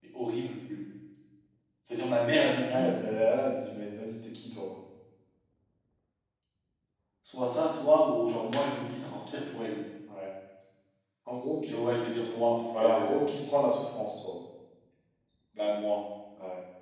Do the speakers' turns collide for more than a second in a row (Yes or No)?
No